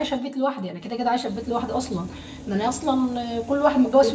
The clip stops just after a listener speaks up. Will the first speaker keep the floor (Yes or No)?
Yes